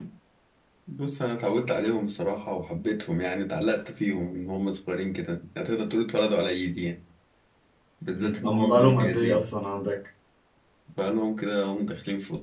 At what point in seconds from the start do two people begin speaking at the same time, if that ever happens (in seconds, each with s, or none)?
8.2 s